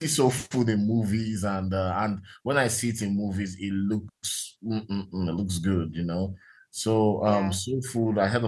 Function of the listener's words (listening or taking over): listening